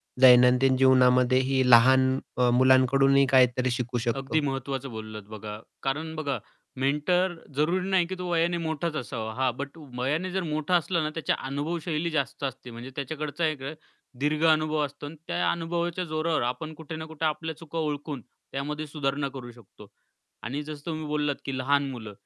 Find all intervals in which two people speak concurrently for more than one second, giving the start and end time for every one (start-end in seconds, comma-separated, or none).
none